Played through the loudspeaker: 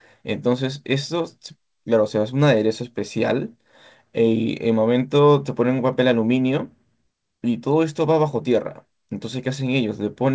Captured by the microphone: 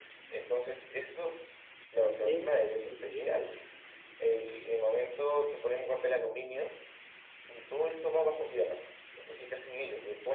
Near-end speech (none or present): present